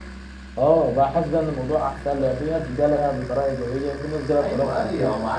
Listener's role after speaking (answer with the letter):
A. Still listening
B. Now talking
B